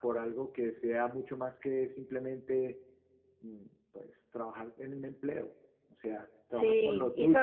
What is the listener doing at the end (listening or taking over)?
taking over